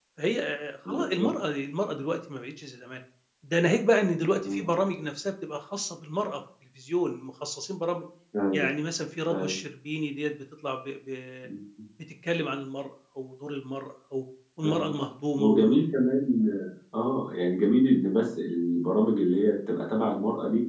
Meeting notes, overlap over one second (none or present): none